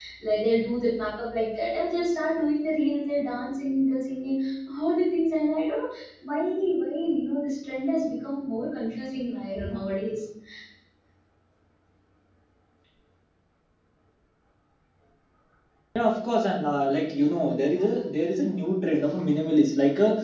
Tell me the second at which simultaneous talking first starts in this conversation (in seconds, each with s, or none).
none